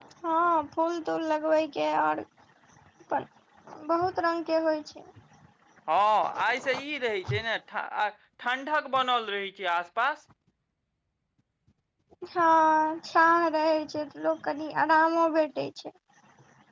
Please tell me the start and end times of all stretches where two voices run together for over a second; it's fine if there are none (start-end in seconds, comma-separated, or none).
none